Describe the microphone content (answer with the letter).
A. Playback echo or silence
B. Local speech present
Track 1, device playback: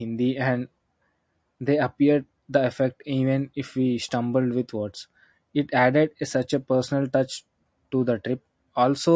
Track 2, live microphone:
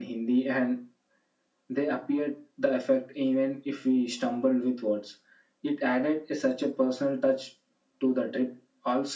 A